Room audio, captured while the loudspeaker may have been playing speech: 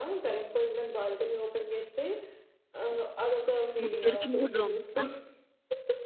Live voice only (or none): ముగ్గురికి 3 రూమ్సా?